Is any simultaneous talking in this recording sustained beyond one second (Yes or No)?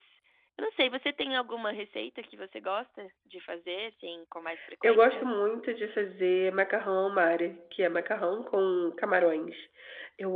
No